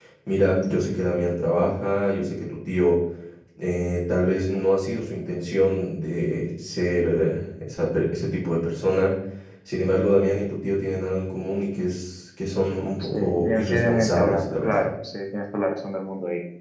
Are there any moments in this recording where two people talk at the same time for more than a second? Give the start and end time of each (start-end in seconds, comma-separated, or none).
13.0-14.9